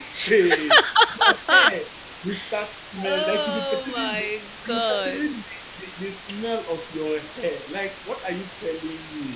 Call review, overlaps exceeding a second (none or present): present